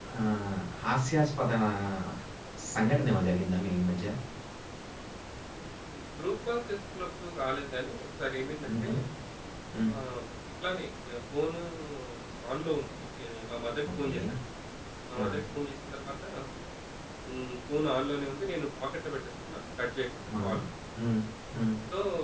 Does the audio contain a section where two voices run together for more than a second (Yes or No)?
No